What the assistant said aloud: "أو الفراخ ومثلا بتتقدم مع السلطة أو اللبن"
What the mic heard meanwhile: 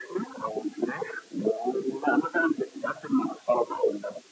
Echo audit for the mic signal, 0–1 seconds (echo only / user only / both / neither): echo only